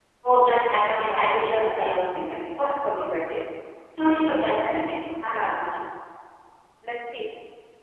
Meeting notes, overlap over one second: present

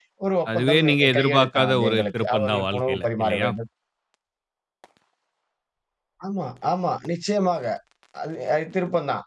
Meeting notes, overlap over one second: present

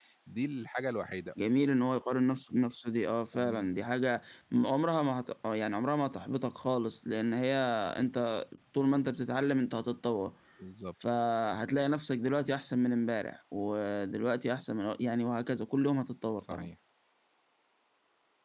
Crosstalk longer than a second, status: none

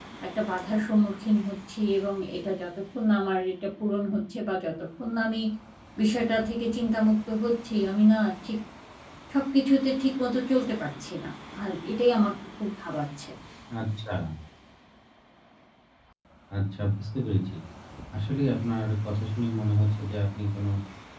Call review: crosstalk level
none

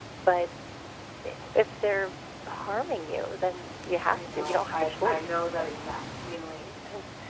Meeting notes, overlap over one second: present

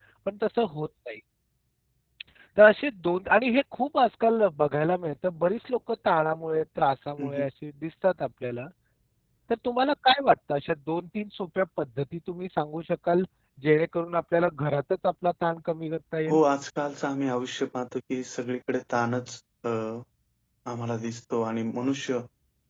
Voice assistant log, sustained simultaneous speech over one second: none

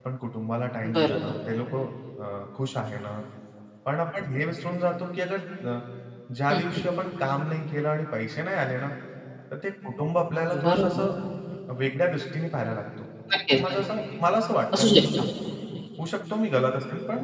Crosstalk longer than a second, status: none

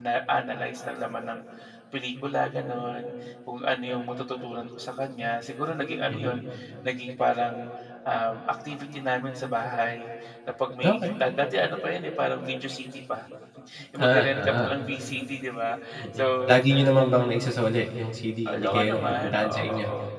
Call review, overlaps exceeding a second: present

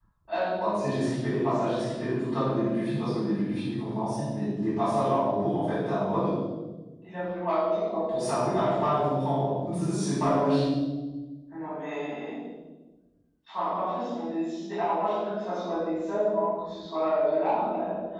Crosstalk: none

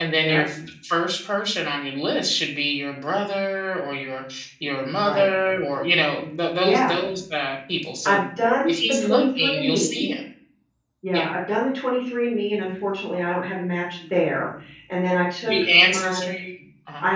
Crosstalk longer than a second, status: present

